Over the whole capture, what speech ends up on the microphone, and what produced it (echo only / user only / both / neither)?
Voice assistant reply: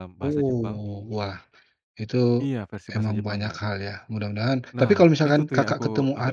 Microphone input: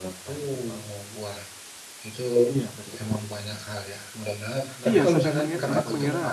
both